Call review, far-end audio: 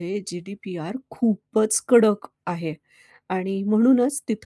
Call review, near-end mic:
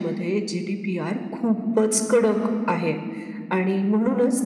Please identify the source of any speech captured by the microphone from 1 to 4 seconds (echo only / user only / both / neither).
echo only